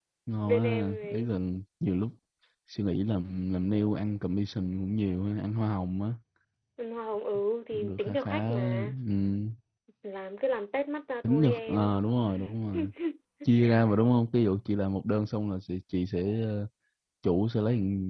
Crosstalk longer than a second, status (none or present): present